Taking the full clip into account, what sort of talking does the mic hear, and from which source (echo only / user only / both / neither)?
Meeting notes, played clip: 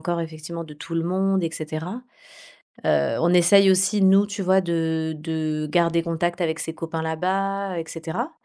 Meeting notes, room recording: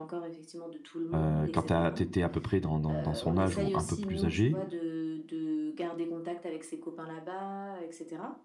both